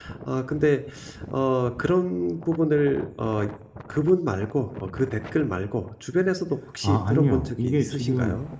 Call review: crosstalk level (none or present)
present